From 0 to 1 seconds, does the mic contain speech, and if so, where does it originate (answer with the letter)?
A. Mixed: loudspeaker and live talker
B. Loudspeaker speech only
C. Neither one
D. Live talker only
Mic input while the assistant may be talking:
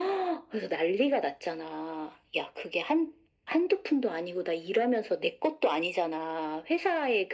B